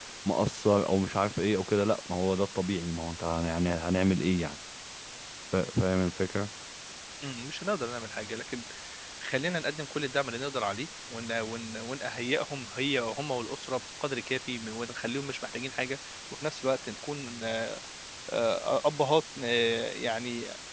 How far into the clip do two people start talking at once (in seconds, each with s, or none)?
none